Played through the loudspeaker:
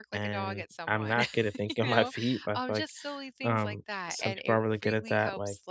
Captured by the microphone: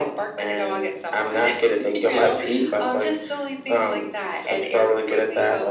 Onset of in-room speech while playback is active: none

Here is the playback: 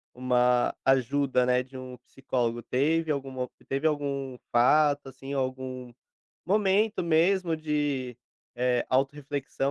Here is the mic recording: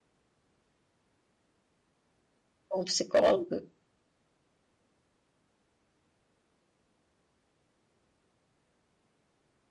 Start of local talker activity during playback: 2.7 s

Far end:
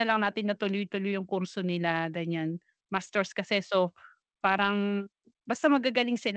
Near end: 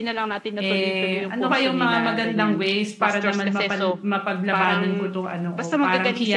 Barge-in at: 0.6 s

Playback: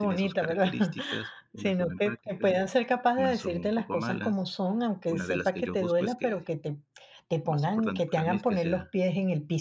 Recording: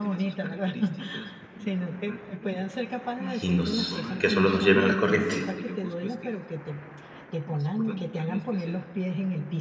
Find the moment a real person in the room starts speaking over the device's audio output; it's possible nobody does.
3.4 s

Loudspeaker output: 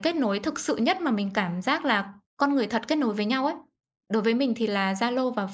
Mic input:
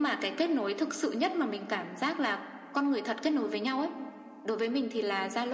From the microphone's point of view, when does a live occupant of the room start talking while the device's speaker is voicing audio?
none

